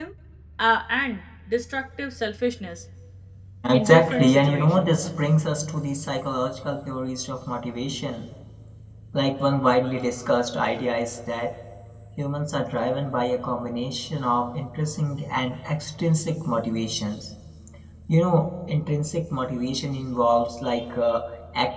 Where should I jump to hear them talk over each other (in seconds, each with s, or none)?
3.7 s